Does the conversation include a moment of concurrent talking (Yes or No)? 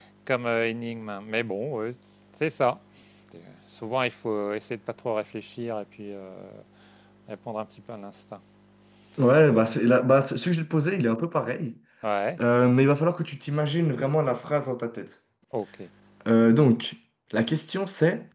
No